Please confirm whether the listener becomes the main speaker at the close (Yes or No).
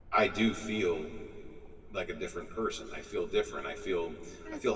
Yes